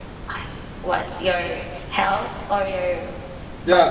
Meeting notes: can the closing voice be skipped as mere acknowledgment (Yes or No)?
No